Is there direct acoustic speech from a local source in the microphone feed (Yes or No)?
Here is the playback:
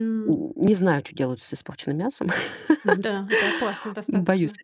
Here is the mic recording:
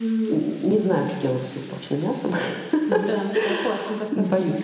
No